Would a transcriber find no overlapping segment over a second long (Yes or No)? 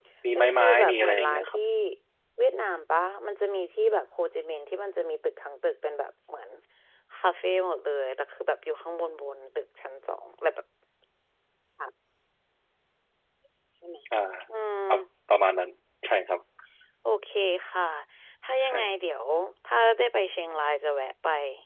No